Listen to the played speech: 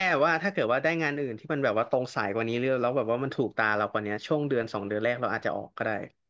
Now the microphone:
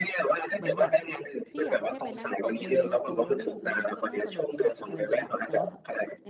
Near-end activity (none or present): present